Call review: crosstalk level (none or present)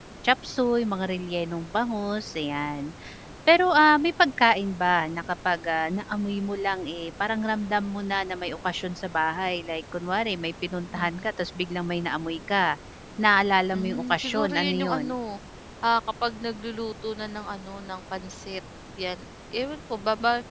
present